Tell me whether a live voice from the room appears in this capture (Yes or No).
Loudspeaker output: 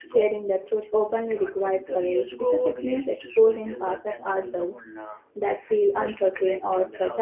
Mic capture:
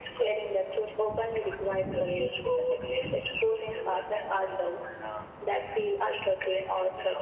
No